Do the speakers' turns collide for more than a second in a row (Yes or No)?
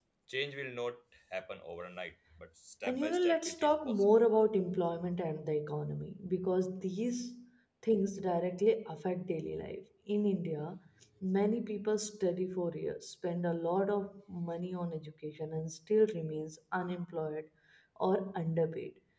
Yes